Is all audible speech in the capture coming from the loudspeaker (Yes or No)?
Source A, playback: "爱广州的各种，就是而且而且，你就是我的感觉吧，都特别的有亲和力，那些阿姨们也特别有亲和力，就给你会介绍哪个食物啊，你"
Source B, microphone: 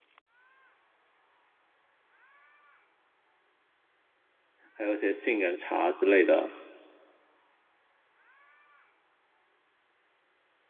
No